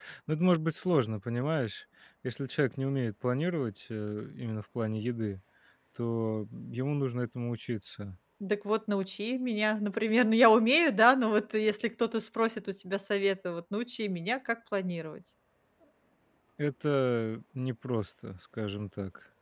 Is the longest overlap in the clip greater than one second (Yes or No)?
No